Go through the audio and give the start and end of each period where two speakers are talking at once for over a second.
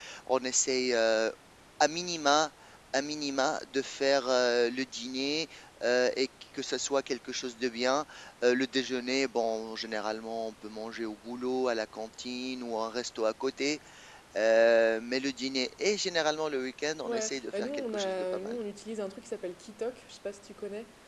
17.0-18.6

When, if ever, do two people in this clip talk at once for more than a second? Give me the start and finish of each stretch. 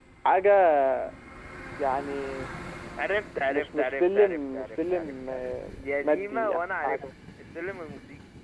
3.5-7.0

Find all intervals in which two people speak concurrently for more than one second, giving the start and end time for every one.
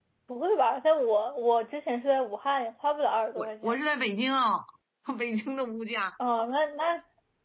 none

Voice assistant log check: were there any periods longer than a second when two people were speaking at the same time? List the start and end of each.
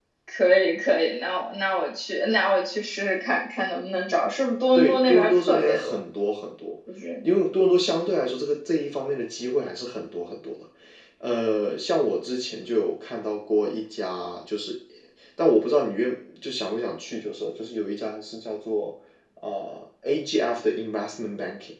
4.8-6.0

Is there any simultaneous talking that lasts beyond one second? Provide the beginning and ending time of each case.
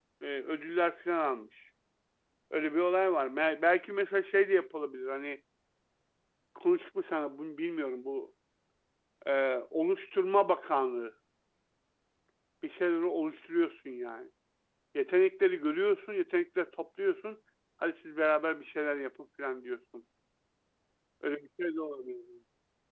none

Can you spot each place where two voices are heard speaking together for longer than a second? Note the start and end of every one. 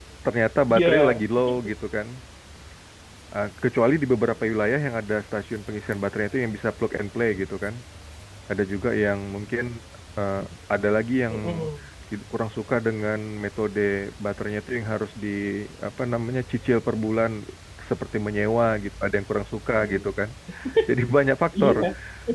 none

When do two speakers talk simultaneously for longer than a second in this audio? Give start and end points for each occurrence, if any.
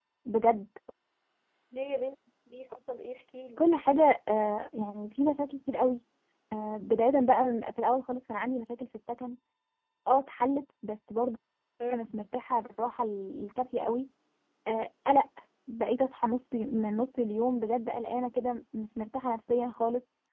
none

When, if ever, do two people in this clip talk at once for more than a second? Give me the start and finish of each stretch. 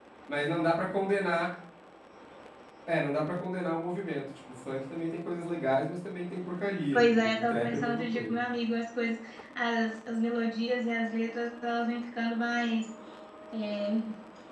6.9-8.4

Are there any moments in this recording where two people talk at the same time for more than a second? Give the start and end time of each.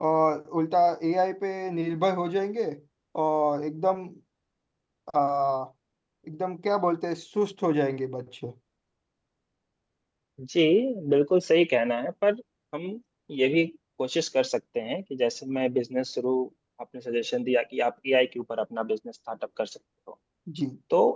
none

